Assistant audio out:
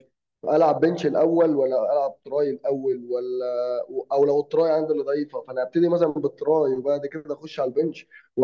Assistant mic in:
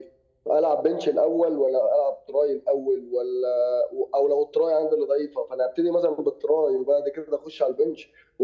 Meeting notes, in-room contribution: none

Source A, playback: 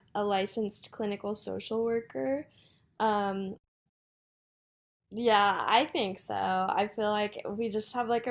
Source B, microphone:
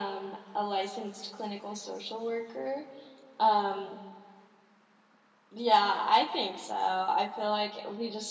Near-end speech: none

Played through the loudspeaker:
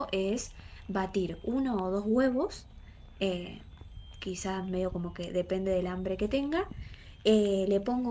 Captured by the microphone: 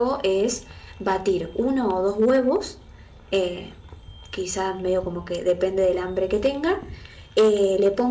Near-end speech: none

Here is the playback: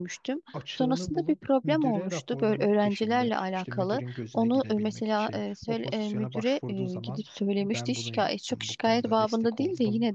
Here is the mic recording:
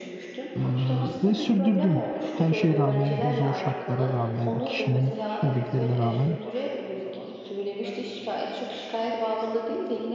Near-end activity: present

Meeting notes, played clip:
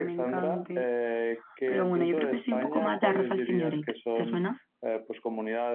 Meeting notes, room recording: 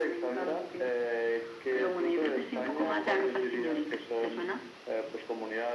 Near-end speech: none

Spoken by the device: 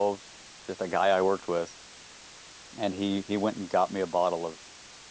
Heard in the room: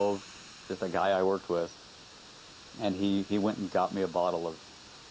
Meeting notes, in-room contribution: none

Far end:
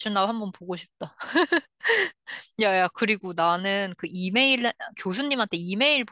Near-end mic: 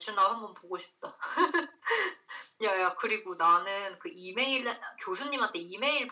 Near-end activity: none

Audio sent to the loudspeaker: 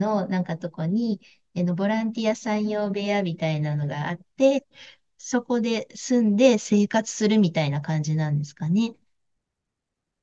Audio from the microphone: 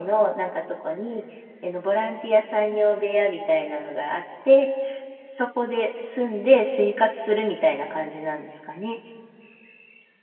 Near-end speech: none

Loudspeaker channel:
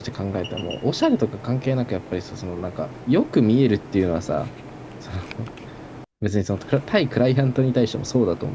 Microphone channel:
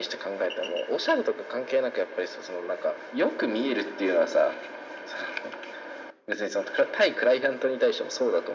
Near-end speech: none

